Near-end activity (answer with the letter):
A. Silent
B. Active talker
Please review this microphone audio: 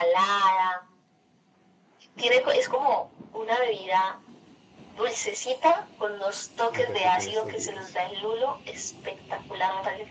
B